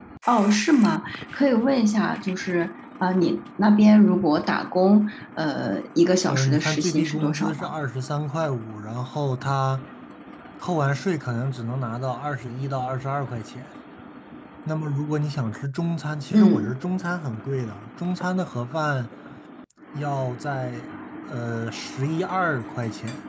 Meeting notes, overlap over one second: present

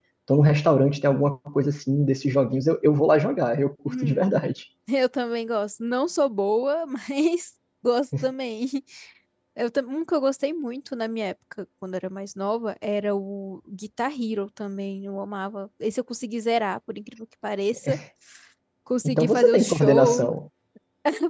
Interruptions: present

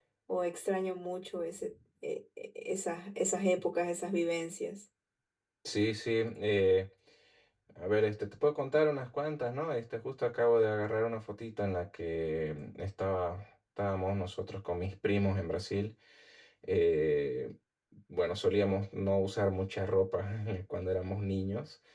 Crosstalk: none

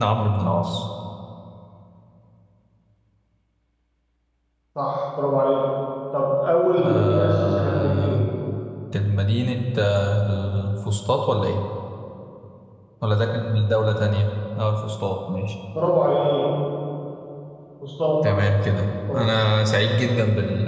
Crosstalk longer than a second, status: present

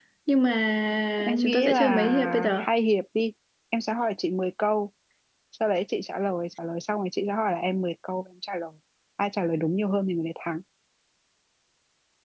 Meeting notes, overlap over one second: present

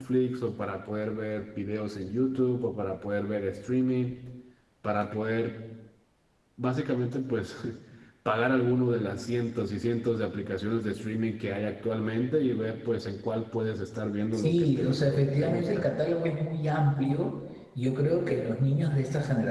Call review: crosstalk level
present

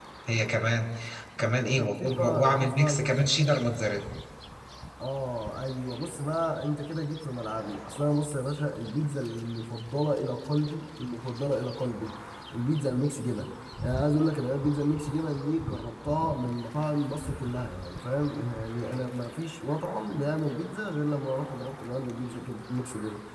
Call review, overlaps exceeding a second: present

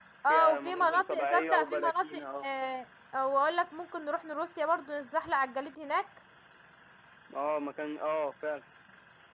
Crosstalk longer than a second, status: present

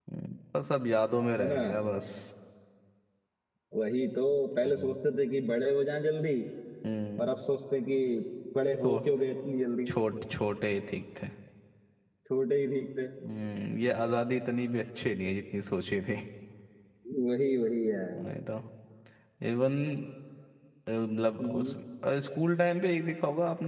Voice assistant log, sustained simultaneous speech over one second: none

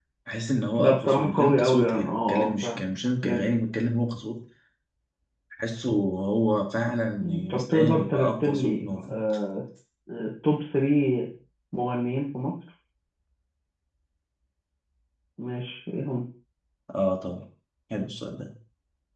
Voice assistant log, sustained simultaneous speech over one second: present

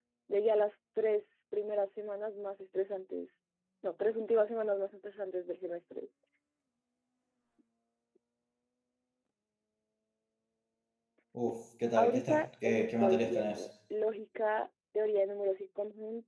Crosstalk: present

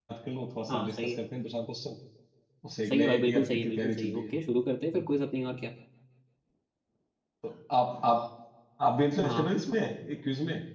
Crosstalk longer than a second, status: present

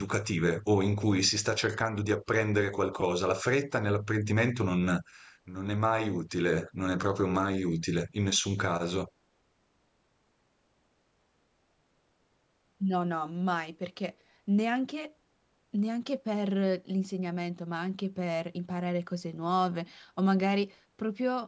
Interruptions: none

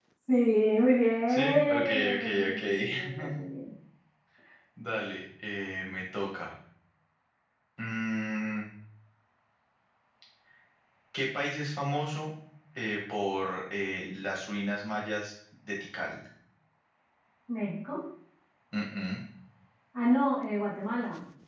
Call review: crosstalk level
present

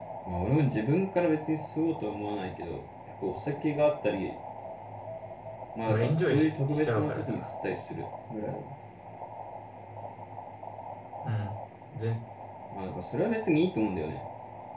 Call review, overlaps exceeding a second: present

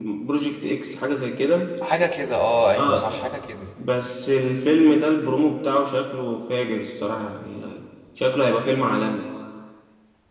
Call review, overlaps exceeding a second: none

